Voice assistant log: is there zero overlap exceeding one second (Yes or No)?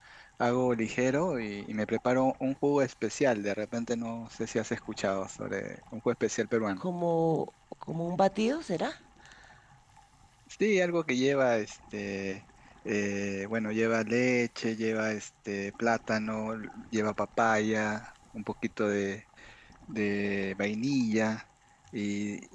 Yes